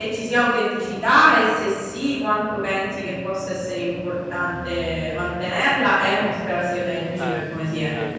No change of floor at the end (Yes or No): No